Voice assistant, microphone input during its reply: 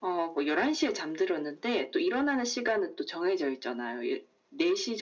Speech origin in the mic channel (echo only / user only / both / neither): echo only